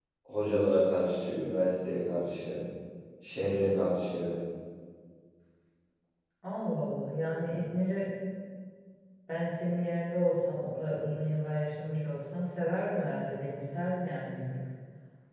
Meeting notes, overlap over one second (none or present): none